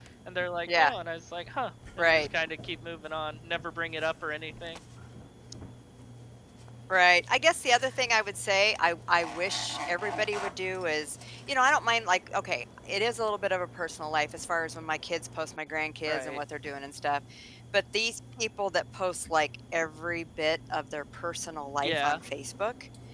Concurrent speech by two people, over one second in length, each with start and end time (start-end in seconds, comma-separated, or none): none